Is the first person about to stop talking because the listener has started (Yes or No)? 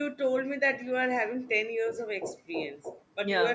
No